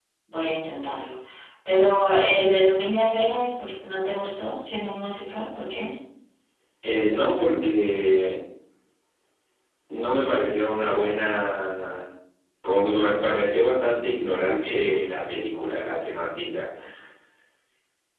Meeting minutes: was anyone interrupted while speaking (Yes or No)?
No